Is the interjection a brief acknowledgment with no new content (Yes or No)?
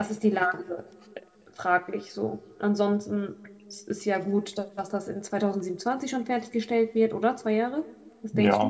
No